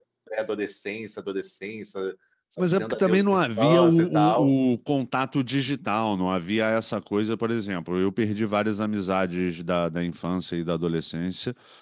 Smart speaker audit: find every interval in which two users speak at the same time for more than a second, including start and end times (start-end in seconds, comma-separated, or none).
2.6-4.5